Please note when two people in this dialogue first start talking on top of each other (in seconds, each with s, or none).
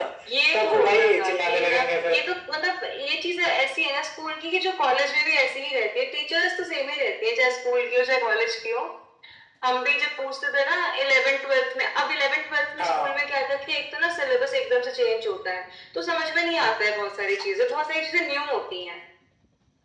0.5 s